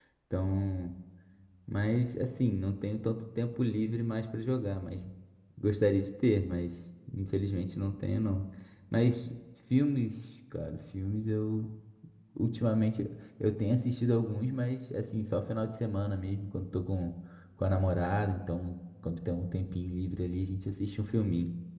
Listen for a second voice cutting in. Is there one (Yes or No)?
No